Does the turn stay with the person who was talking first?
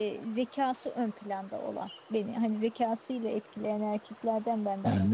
No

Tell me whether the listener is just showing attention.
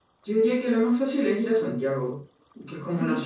Yes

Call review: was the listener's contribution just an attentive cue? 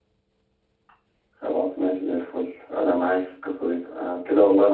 Yes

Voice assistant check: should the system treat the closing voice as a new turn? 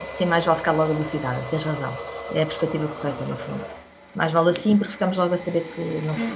Yes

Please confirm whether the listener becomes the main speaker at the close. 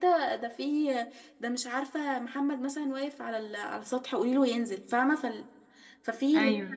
No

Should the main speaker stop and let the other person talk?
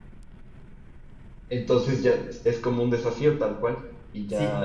Yes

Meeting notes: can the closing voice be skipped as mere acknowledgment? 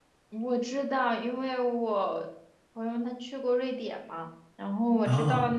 Yes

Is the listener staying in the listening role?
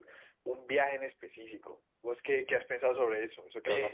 No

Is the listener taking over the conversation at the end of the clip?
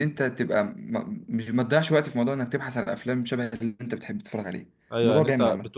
Yes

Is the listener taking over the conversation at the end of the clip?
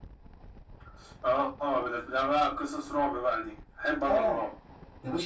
Yes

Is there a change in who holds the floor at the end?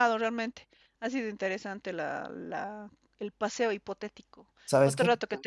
No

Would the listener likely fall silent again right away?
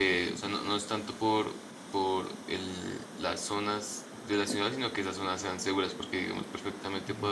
Yes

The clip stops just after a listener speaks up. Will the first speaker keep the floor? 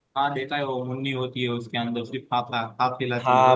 No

